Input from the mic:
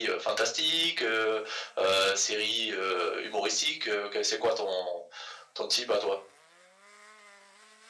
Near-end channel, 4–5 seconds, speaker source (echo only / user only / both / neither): echo only